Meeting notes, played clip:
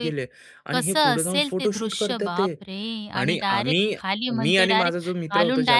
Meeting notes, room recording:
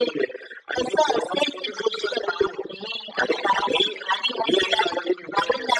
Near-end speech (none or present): none